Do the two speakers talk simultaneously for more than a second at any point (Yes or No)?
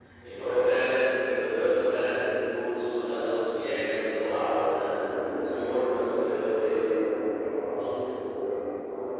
Yes